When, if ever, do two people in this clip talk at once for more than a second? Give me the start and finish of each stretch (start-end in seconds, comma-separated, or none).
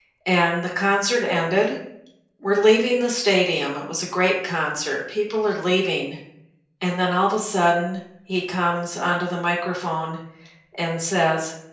none